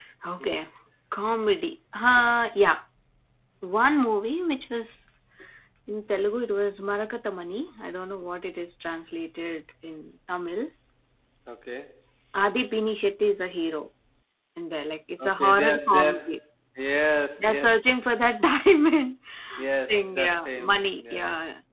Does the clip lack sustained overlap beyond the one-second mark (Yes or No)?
No